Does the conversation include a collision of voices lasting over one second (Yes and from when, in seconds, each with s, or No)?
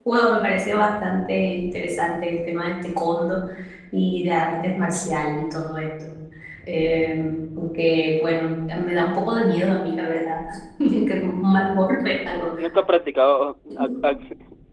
No